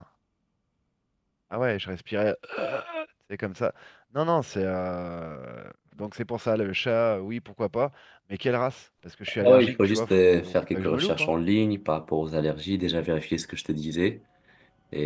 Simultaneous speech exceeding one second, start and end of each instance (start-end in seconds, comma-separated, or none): 9.4-11.4